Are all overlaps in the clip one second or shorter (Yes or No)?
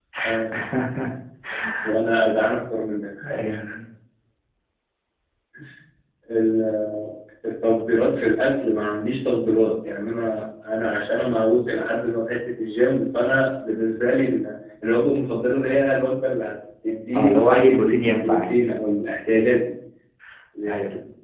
No